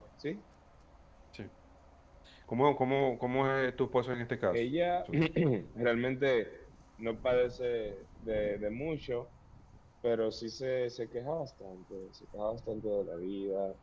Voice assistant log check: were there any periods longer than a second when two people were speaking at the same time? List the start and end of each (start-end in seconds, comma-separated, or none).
none